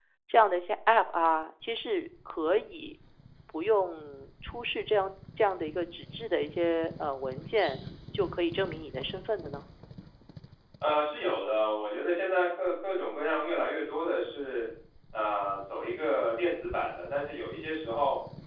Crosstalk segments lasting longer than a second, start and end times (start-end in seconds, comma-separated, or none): none